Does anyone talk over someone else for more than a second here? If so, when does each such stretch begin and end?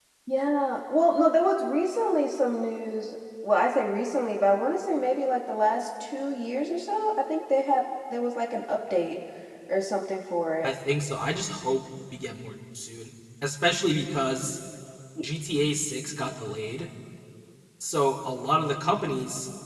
none

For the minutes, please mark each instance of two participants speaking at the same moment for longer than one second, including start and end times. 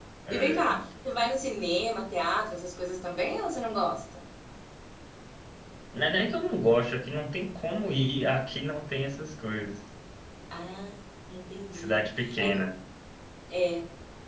none

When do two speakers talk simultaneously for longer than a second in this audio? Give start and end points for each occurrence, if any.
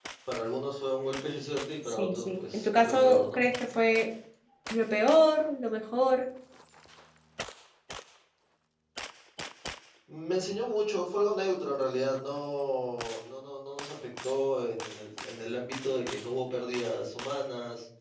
1.9-3.4

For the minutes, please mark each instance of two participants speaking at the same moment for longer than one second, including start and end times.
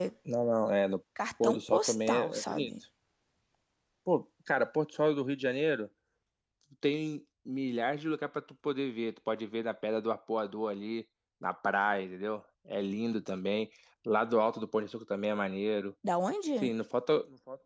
1.4-2.7

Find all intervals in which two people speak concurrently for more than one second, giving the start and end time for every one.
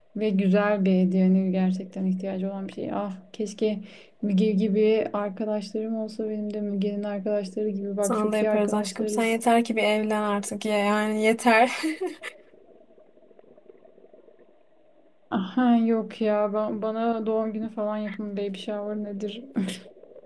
8.0-9.3

